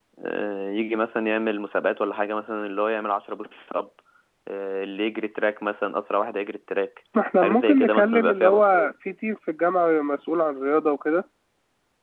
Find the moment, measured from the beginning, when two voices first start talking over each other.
7 s

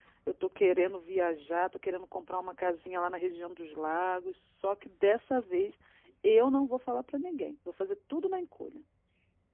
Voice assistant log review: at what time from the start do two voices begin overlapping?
none

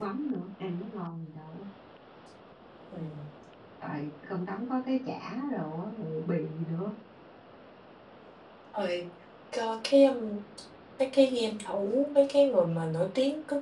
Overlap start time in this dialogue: none

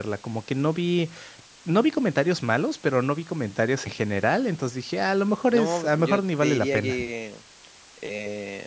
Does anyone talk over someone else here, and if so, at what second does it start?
6 s

